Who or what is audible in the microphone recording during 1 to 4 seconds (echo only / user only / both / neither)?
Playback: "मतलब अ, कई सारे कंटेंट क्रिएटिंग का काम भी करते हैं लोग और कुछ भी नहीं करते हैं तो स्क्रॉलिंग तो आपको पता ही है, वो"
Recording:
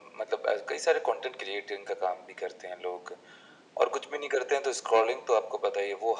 echo only